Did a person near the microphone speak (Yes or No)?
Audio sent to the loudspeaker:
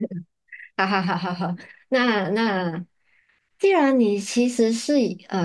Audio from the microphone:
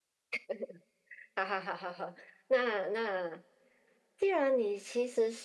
No